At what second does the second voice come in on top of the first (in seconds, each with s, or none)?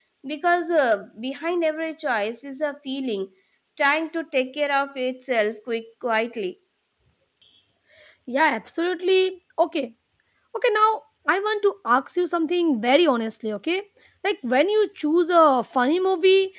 none